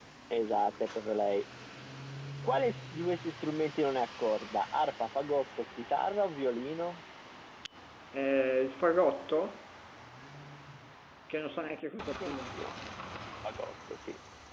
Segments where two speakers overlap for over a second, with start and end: none

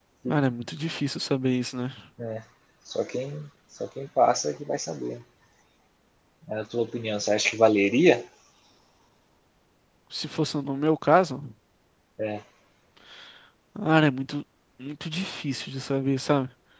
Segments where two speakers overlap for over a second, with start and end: none

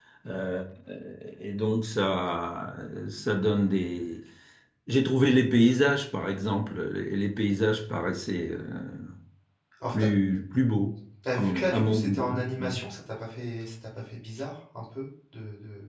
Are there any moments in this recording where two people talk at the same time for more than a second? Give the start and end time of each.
11.3-12.8

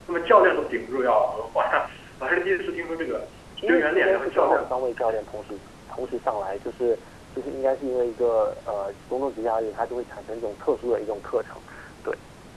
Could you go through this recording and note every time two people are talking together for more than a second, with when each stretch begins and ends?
3.6-4.9

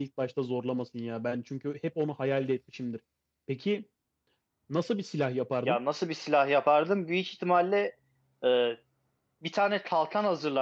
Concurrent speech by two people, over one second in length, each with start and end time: none

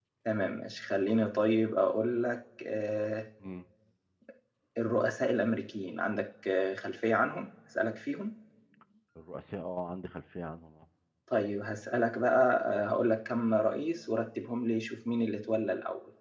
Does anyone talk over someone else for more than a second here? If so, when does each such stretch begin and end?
none

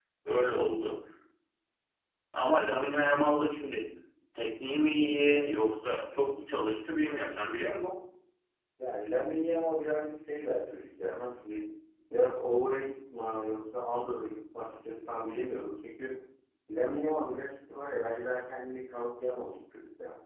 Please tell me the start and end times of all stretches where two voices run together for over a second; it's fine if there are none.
none

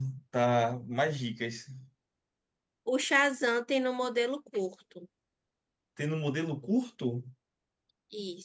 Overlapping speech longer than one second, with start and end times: none

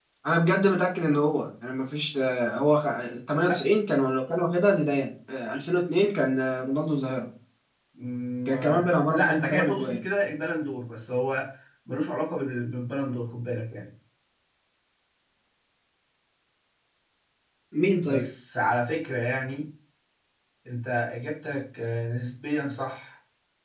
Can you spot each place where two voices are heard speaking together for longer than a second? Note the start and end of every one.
8.5-10.0

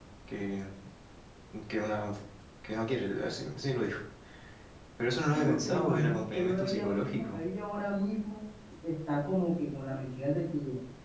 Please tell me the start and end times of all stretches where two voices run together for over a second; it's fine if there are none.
5.3-7.4

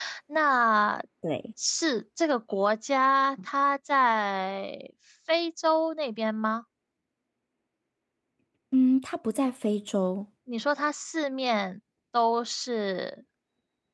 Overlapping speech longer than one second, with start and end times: none

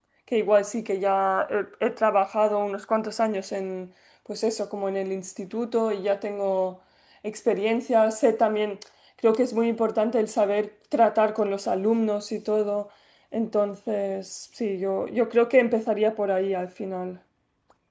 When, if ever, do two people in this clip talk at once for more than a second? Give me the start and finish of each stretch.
none

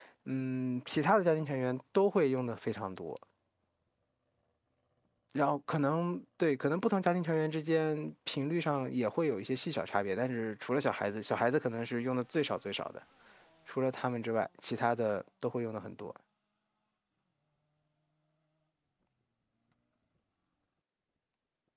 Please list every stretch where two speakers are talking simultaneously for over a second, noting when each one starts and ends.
none

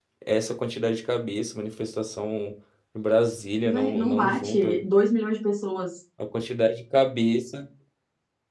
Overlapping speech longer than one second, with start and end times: 3.6-4.9

